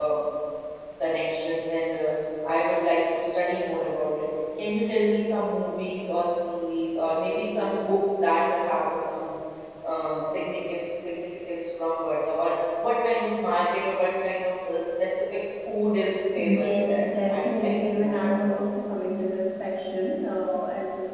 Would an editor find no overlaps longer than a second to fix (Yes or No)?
No